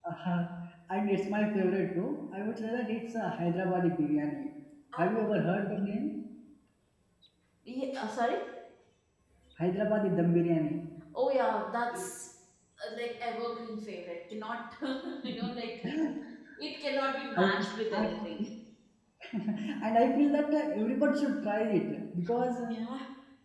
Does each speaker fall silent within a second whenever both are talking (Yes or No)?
Yes